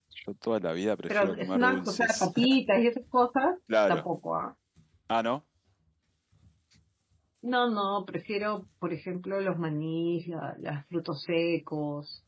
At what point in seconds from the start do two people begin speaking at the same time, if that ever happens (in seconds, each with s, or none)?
1.1 s